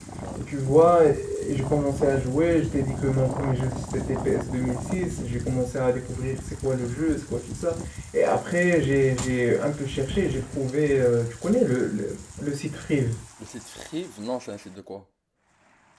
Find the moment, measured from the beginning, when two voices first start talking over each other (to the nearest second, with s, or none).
none